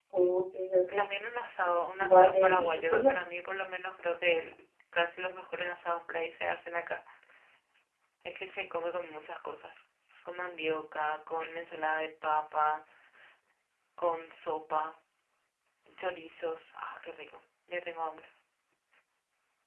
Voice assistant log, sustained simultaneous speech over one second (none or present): present